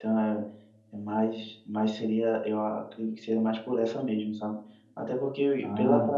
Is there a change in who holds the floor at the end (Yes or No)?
No